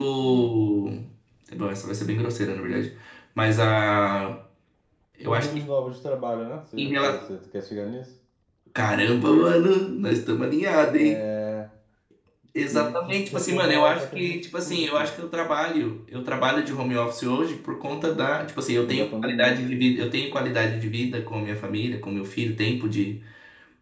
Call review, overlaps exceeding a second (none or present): present